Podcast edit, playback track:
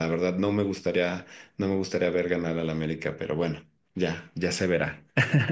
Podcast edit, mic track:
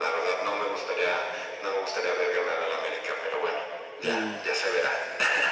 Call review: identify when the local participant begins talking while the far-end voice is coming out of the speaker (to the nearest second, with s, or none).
4 s